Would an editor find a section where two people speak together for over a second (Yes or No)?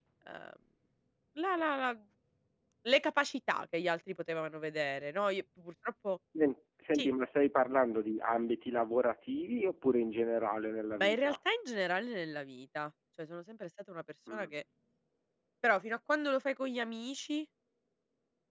No